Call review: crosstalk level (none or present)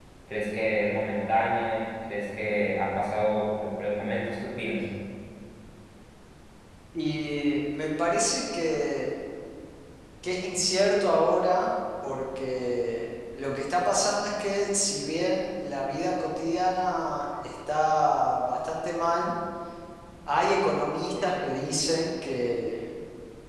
none